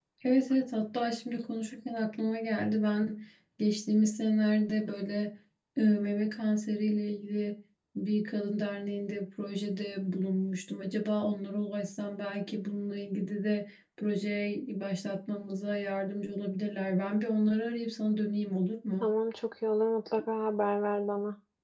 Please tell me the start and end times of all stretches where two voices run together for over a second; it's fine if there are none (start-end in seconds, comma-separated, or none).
none